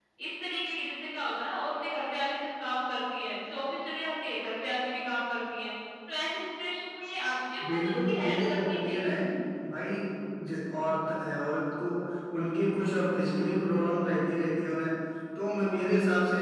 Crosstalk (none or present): present